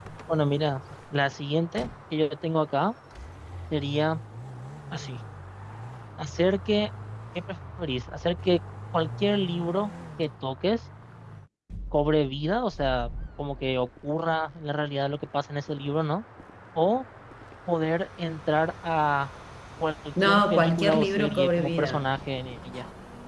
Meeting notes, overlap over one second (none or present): present